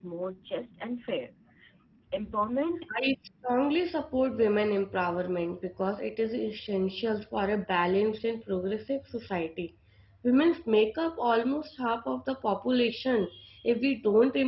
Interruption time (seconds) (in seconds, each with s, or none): none